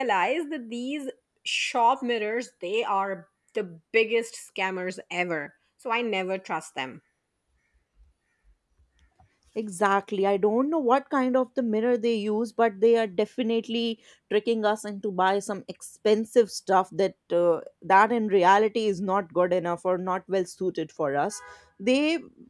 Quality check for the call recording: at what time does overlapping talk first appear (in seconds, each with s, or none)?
none